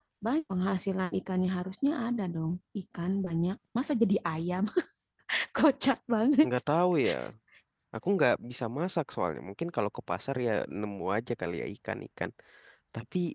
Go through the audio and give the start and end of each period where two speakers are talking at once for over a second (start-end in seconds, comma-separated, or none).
none